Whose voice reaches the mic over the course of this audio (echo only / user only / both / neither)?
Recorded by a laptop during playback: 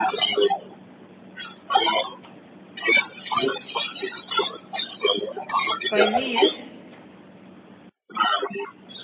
both